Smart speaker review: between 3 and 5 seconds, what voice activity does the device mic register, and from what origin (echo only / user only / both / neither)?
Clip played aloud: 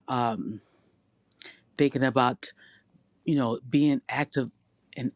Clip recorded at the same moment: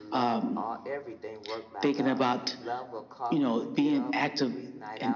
both